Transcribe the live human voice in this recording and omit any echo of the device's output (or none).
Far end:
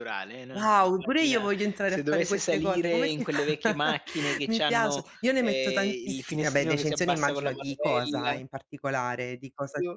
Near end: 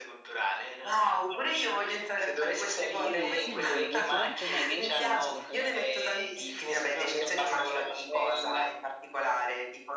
Ma quello è un simbolo, non si rompe mai, gli hai detto che non si rompe mai?"